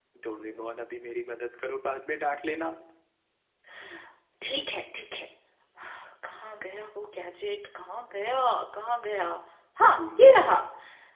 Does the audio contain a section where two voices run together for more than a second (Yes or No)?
No